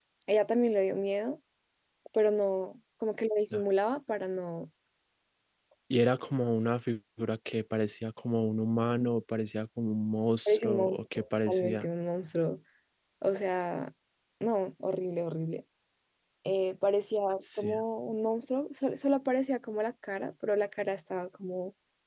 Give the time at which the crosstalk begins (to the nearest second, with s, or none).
10 s